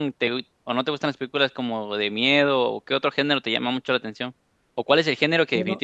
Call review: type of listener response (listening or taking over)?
listening